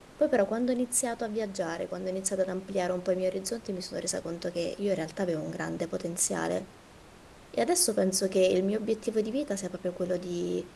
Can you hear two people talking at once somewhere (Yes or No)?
No